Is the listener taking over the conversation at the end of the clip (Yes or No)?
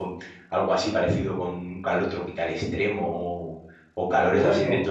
No